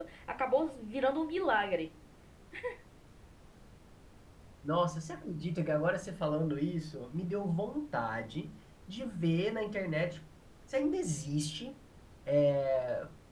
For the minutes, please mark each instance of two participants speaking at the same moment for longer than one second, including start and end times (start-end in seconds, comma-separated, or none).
none